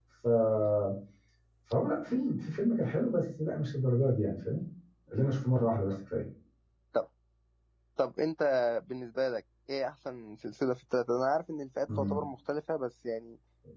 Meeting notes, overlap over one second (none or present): none